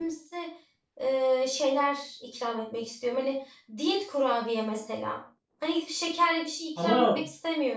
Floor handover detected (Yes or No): Yes